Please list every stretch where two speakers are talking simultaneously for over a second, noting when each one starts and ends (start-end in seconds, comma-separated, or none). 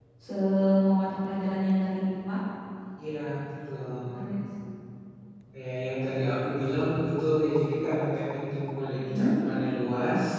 none